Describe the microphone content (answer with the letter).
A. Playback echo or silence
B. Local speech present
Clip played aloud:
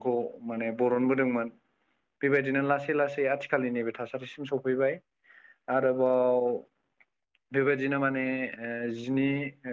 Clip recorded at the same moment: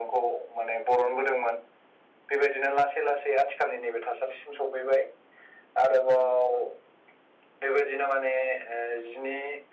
A